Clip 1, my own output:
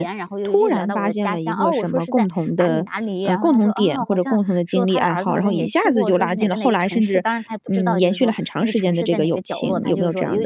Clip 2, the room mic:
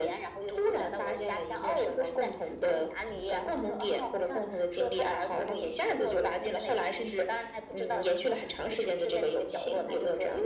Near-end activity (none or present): none